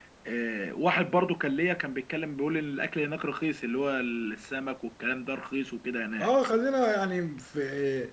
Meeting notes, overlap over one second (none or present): none